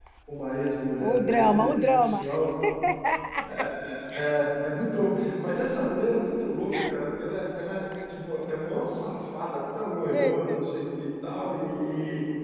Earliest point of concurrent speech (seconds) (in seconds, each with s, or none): 1.0 s